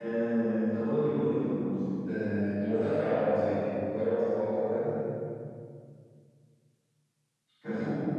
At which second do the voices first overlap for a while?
none

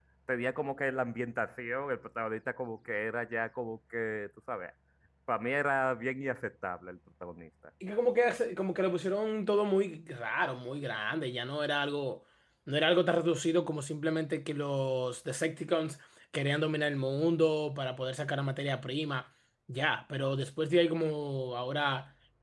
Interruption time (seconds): none

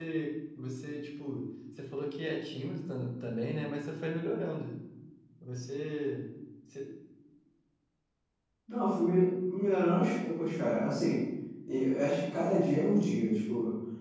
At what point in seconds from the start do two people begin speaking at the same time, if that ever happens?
none

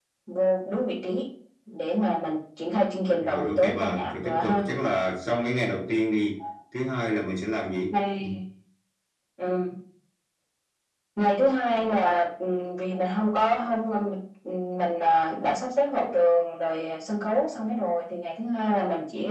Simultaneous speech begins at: 3.2 s

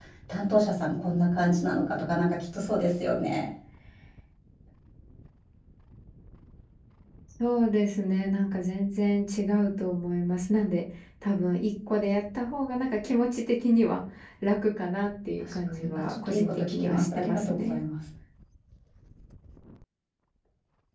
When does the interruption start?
15.4 s

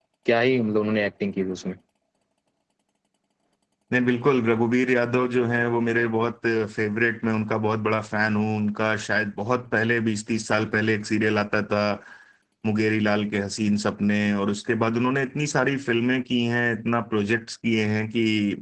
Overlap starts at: none

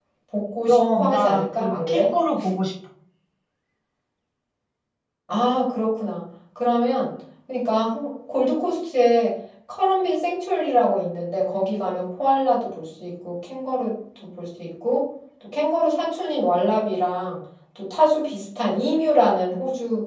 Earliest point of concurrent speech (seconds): 0.7 s

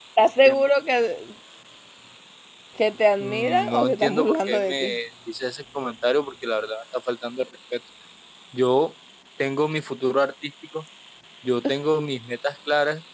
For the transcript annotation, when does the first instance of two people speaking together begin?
3.2 s

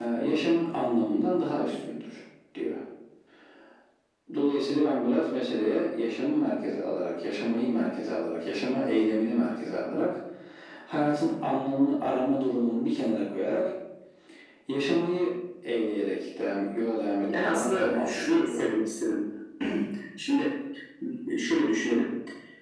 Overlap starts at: 17.3 s

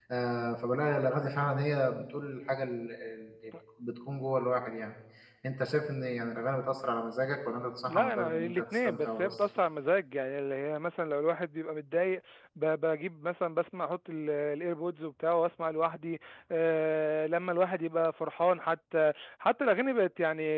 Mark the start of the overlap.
7.9 s

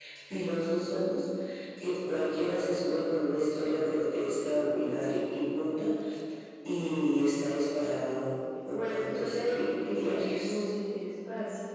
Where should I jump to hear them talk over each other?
8.7 s

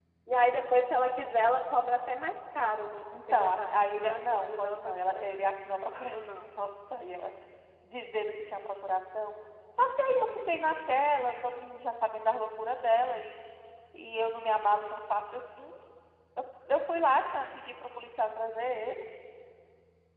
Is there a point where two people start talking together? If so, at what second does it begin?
3.3 s

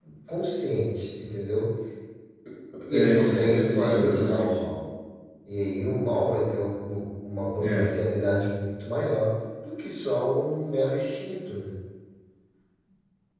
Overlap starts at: 2.9 s

